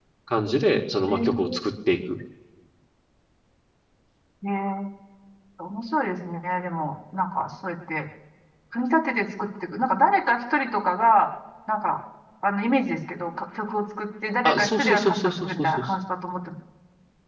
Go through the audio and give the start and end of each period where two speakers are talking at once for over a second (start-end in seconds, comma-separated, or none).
14.4-15.8